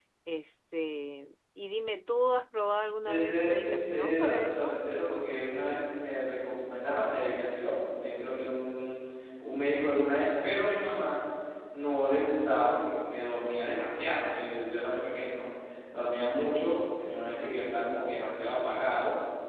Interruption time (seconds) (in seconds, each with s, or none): 3.0 s